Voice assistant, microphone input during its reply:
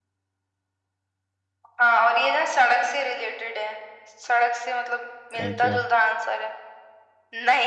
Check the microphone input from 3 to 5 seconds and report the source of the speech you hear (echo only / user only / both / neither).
echo only